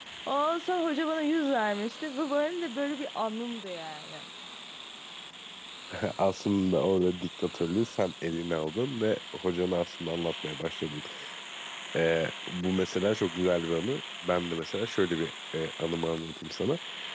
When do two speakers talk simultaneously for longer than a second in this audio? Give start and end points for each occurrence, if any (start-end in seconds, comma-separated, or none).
none